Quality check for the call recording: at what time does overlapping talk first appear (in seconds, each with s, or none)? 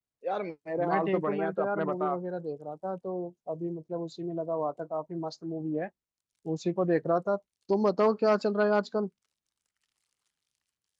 0.9 s